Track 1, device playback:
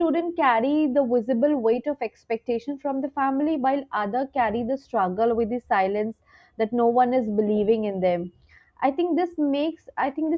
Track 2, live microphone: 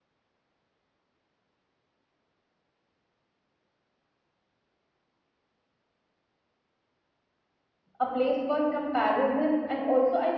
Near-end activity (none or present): present